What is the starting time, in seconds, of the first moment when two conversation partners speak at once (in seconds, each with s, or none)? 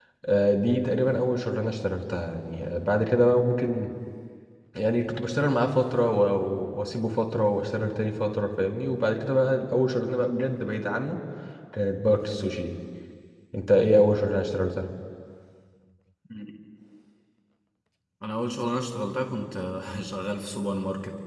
none